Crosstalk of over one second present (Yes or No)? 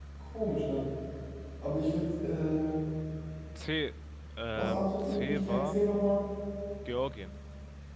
Yes